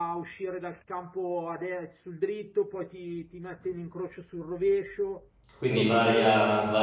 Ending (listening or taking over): taking over